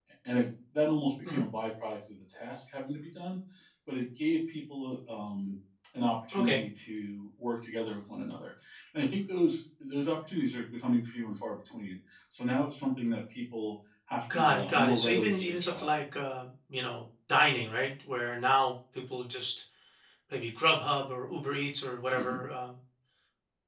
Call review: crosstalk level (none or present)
present